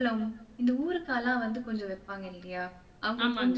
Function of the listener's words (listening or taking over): listening